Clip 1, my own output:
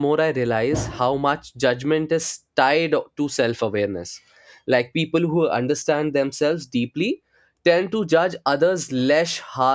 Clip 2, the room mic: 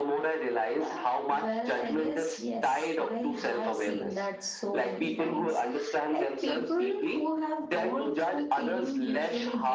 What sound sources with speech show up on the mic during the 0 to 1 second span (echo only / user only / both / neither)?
echo only